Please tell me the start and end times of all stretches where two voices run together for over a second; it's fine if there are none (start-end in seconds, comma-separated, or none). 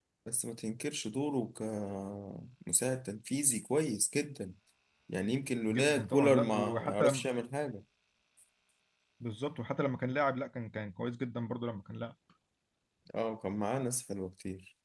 5.7-7.2